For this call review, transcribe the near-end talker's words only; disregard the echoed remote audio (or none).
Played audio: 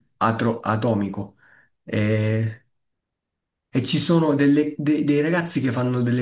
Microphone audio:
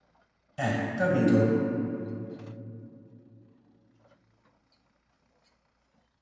Eh, capito?